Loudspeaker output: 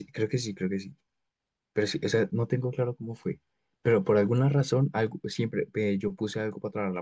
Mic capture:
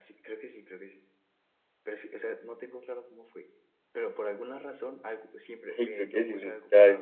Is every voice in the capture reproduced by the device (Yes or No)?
No